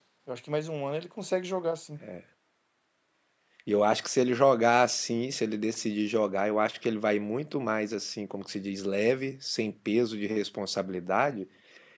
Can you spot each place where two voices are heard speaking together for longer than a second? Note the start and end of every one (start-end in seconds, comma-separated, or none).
none